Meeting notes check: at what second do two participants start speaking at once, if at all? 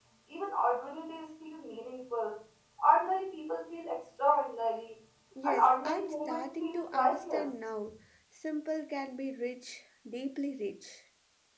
5.4 s

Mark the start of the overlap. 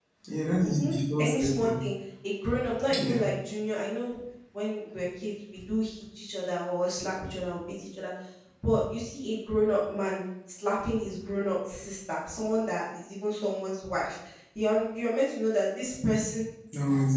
0.6 s

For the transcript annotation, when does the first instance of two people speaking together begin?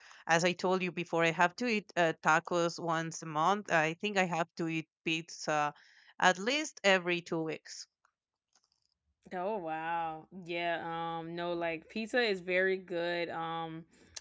none

